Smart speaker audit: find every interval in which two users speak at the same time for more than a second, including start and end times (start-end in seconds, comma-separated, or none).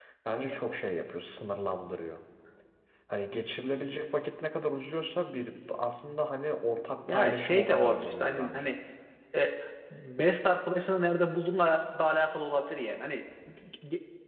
7.1-8.8